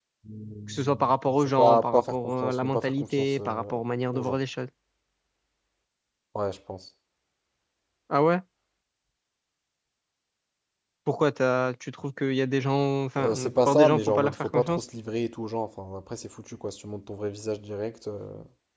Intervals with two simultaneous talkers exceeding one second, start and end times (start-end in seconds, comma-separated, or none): 0.7-3.7, 13.2-14.8